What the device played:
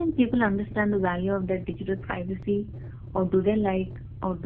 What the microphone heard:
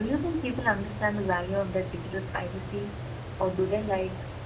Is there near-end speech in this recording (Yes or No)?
No